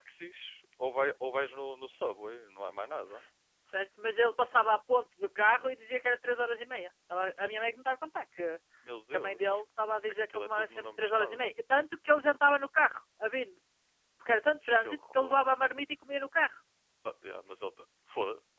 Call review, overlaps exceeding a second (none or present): present